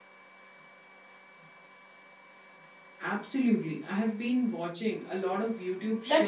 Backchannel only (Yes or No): No